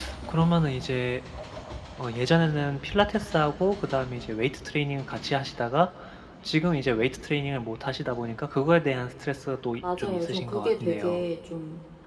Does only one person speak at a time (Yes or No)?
No